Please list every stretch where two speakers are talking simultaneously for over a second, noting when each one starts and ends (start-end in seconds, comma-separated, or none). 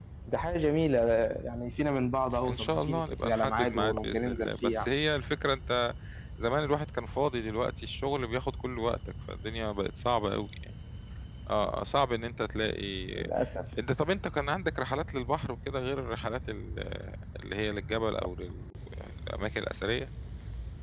2.5-4.9